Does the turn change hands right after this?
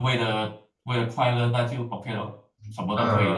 Yes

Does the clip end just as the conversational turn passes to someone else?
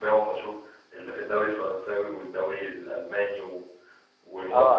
Yes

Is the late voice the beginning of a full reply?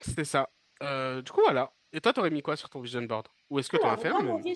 Yes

